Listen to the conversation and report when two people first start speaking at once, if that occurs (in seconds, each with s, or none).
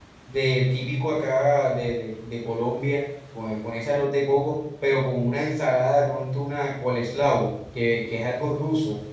none